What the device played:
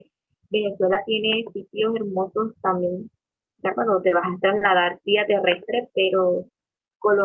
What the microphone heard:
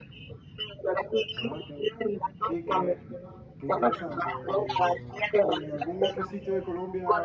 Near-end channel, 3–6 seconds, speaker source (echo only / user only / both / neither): both